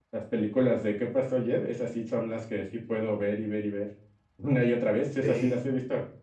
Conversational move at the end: listening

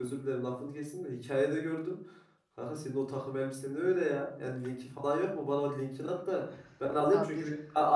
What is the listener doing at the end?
listening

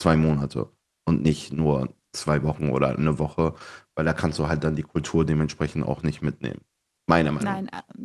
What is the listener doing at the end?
taking over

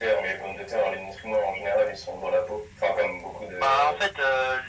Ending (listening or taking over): taking over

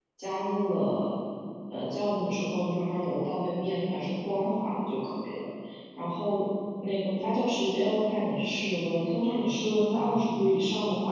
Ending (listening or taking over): listening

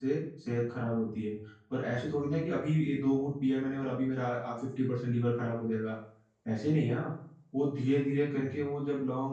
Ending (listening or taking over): listening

